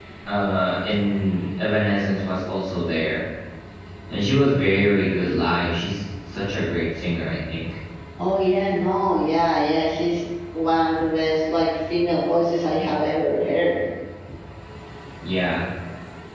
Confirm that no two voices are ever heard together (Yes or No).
Yes